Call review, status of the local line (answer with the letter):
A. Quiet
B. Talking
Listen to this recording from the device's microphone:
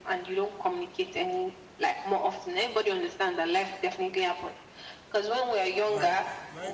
B